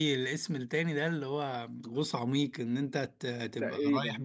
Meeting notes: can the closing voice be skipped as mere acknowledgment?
Yes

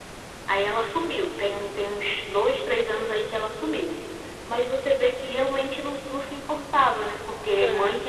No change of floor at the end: Yes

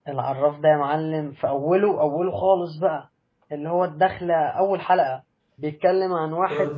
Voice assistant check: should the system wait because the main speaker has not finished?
Yes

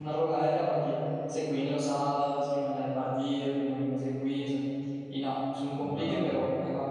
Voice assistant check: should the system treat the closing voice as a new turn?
No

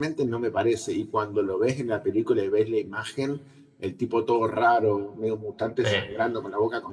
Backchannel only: Yes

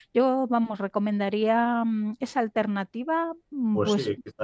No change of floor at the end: No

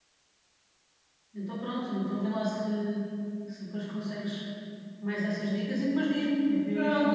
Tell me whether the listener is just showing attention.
No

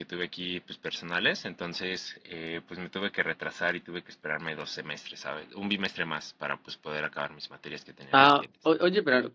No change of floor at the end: No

